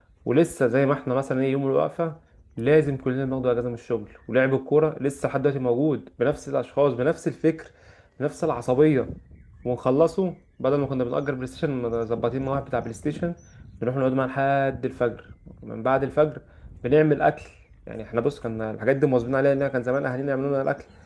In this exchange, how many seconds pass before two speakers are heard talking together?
none

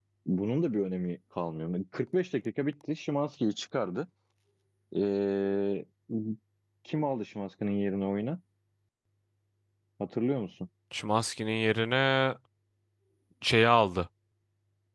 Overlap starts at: none

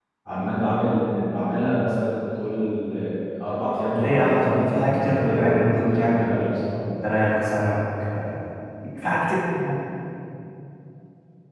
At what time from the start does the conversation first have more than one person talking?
3.9 s

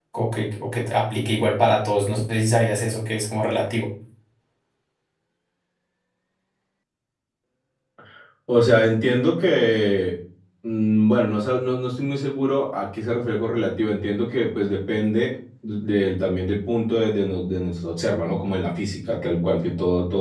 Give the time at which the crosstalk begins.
none

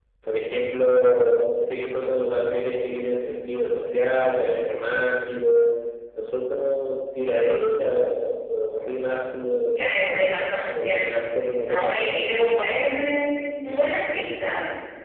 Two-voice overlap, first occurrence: 9.8 s

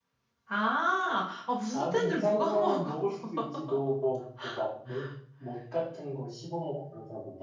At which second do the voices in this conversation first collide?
1.7 s

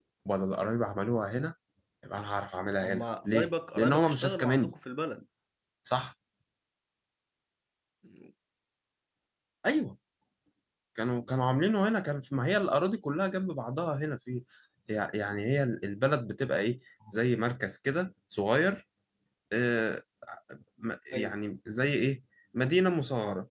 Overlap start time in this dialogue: 2.8 s

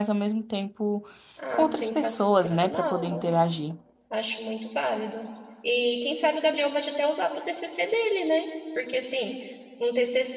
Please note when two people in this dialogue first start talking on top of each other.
1.5 s

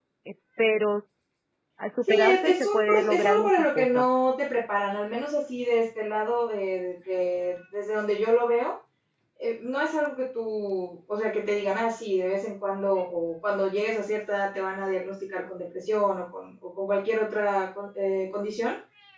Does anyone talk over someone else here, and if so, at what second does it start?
2.1 s

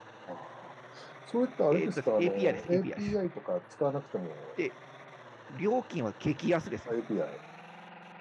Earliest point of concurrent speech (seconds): 1.7 s

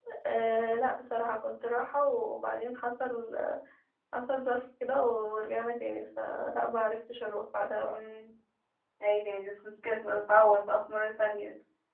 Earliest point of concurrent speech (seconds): none

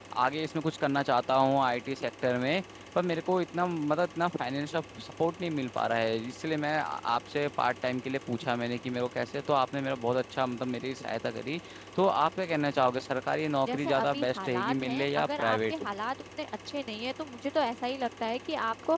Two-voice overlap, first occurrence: 13.7 s

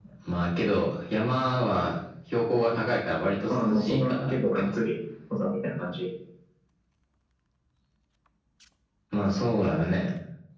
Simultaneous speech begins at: 3.5 s

